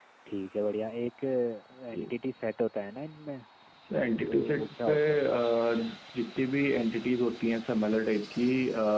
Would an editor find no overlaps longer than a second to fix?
No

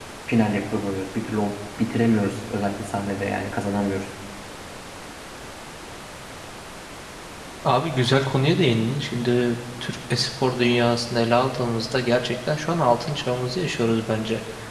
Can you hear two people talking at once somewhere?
No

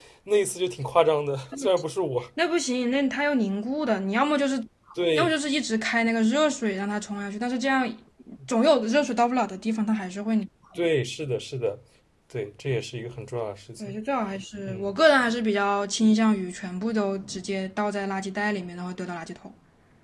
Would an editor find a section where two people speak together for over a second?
No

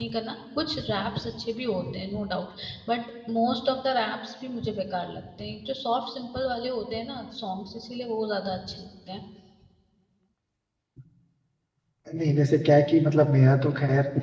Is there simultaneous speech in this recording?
No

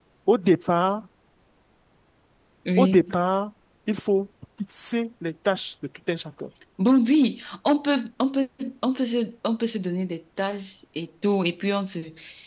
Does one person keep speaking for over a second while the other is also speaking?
No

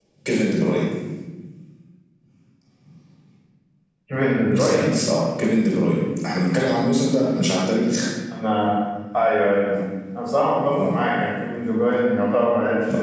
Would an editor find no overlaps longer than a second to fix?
Yes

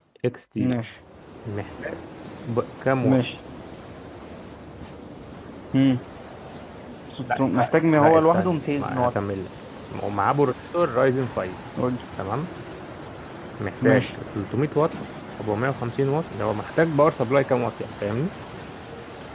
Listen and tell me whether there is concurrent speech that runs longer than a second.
Yes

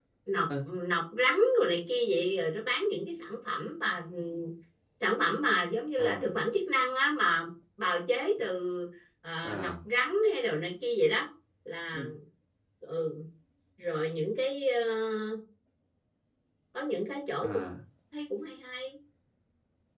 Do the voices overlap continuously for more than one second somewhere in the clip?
No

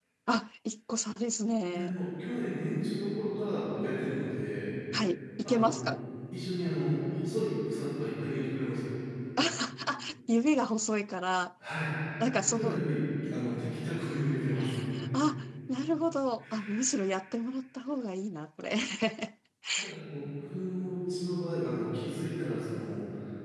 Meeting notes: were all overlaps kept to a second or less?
Yes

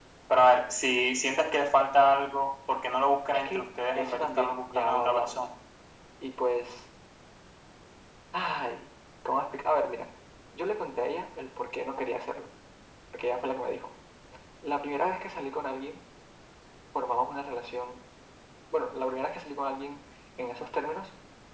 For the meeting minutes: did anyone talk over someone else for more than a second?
Yes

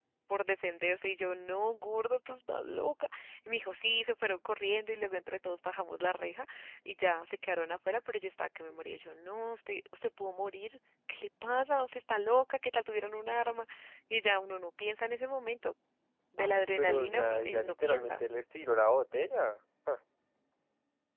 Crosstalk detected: Yes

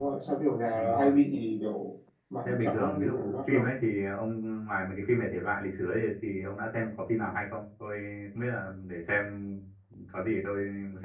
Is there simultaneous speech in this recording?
Yes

